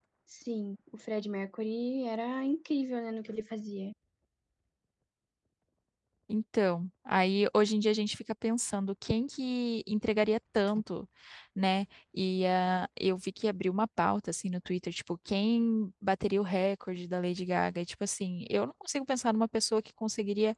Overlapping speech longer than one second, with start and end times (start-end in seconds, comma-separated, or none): none